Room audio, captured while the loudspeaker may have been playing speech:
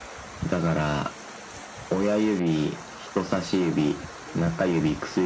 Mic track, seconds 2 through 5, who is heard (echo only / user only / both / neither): echo only